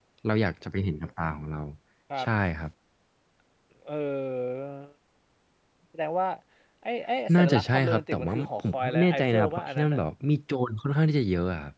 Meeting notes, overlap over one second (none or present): present